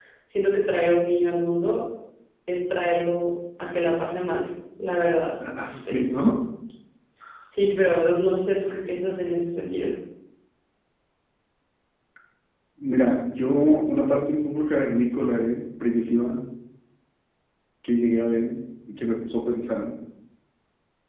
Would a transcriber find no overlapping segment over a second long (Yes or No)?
Yes